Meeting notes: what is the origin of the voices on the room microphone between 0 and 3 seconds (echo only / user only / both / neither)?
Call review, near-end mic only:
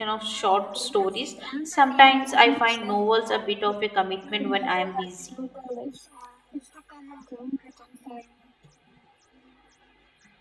both